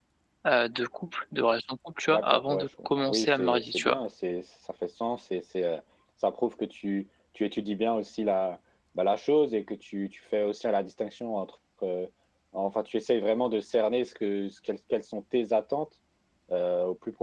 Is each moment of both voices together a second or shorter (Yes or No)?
No